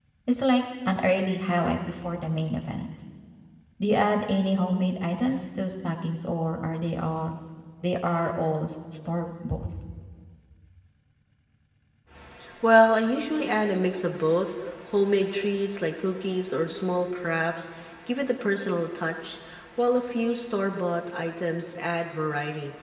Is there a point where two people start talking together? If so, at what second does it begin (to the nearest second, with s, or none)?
none